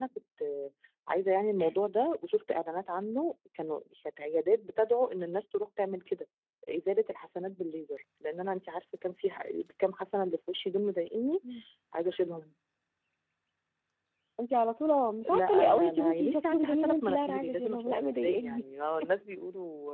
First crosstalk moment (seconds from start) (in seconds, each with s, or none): 15.3 s